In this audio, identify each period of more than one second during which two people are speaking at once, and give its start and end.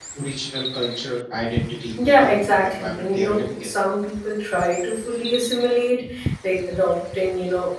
2.0-3.7

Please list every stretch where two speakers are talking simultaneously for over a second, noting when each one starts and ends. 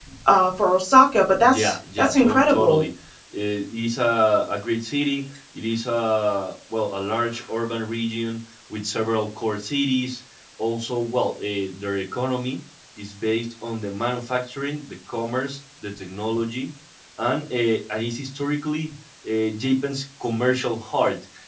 1.4-2.8

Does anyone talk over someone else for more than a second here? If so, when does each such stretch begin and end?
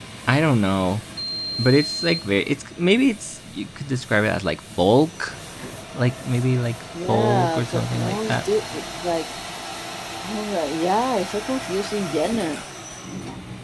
7.1-8.3

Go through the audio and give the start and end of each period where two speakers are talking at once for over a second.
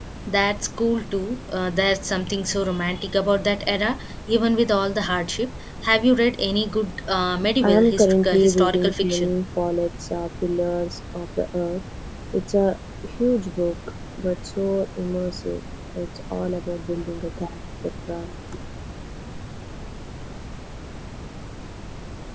7.6-9.3

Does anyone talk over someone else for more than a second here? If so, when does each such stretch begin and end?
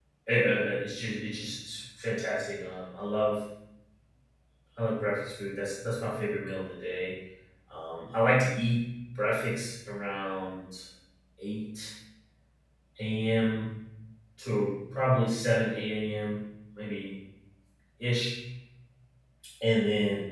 none

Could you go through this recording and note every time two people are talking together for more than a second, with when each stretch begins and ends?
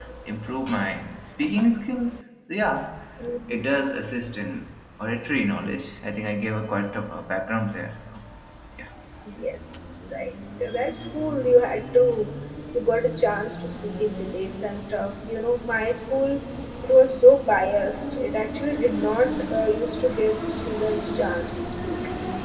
none

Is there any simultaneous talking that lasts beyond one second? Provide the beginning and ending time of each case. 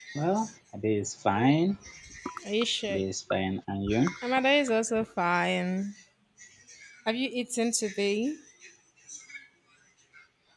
none

